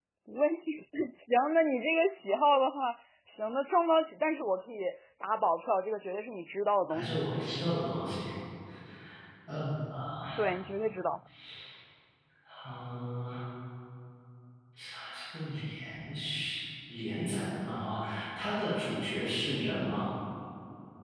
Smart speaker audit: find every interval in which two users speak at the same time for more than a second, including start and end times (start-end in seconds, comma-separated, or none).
none